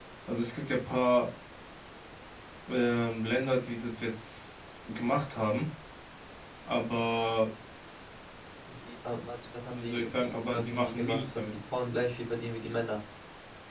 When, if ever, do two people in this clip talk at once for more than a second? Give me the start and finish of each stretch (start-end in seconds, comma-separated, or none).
9.7-11.5